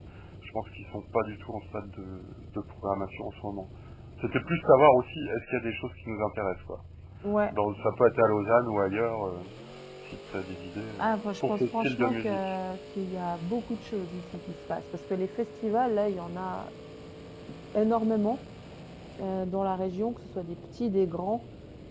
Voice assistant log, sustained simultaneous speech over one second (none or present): present